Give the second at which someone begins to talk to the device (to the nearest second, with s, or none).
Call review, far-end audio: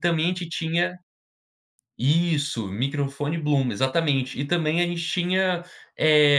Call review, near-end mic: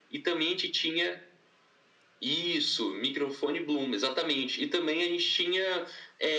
none